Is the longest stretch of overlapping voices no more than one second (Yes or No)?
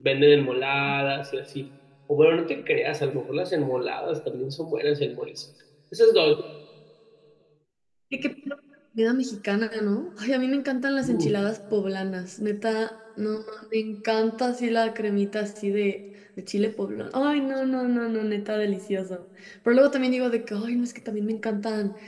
Yes